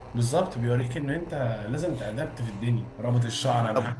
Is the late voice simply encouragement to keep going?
Yes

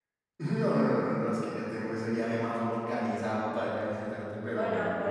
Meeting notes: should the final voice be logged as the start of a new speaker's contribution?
Yes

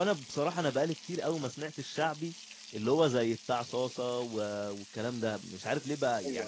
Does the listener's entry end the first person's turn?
No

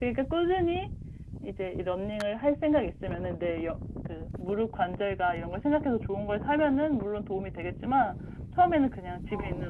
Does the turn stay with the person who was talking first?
Yes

